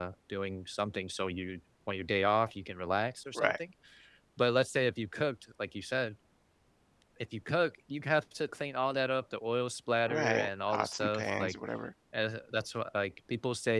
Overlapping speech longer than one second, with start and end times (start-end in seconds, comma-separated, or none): 10.1-11.5